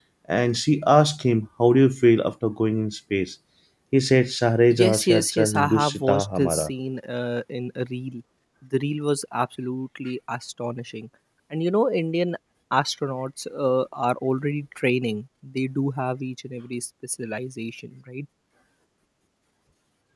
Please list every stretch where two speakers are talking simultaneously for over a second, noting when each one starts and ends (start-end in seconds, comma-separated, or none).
4.8-6.7